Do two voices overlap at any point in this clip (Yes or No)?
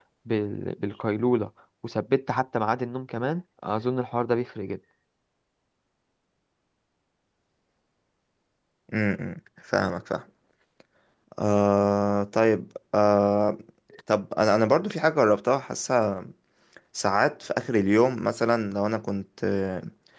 No